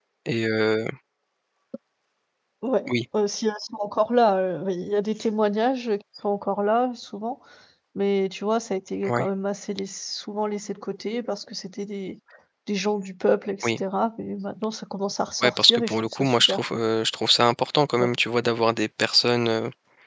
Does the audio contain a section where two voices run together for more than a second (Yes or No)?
Yes